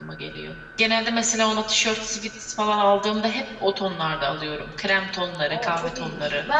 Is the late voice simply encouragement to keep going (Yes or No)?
No